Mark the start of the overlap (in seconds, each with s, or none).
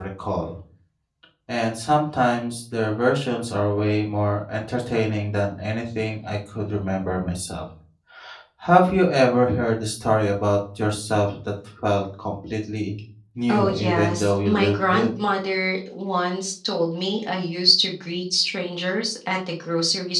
13.5 s